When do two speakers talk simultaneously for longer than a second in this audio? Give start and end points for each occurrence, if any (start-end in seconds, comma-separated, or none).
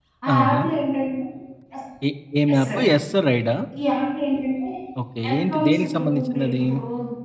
5.3-6.6